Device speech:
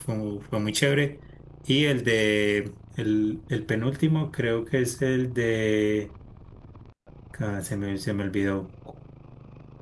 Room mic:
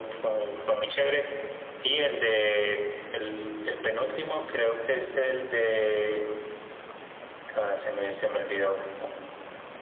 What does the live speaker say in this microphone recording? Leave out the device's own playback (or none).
none